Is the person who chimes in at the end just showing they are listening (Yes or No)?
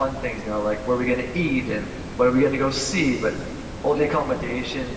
Yes